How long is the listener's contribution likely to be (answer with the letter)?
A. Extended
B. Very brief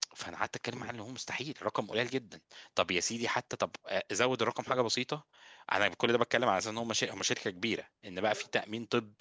B